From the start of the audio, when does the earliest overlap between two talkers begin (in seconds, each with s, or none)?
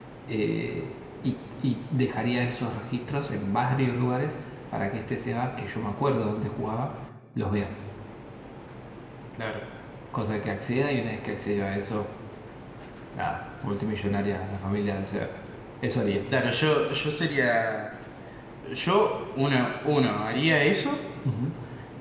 none